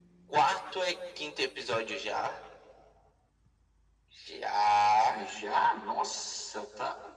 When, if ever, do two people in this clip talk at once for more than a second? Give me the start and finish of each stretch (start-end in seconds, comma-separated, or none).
none